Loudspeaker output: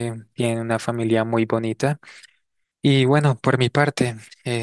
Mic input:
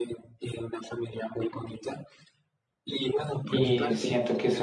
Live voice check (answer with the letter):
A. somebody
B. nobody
A